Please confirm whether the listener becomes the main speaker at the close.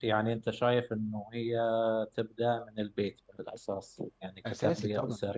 Yes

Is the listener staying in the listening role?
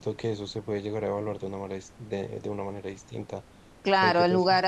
No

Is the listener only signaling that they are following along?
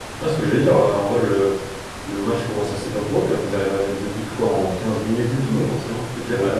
Yes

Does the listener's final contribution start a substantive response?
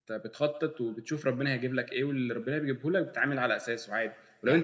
No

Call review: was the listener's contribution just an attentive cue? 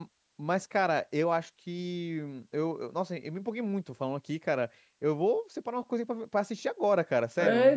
No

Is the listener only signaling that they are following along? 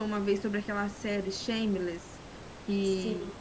Yes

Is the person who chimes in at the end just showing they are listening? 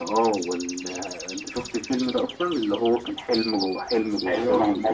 No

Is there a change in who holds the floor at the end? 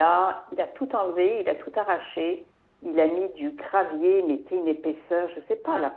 No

